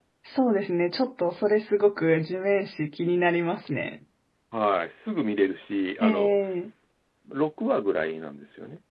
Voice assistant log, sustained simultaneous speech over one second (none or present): none